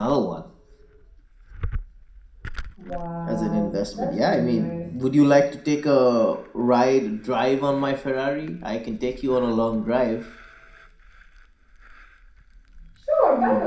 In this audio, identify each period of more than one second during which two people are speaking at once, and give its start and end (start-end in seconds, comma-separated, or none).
3.3-4.9